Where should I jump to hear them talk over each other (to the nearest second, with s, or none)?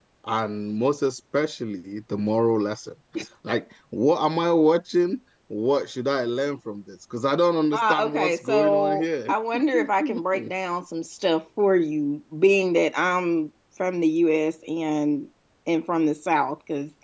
8 s